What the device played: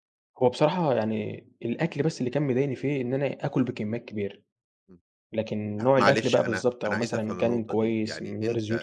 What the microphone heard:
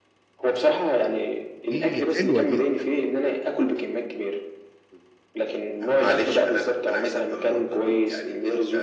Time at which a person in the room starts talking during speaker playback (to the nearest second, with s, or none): 2 s